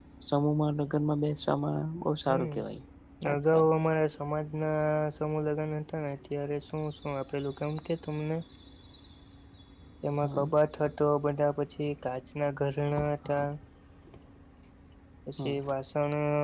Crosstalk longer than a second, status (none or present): none